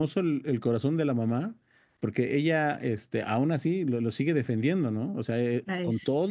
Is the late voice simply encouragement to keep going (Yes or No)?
Yes